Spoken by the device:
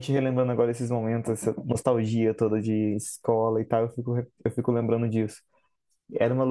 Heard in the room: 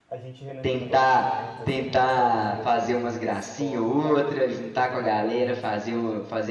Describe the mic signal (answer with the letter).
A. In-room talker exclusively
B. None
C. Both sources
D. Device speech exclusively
C